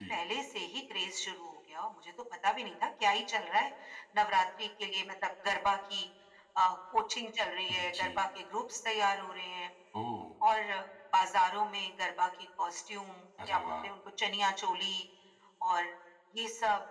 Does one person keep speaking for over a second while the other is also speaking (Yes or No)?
No